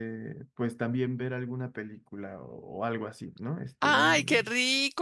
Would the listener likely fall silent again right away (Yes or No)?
No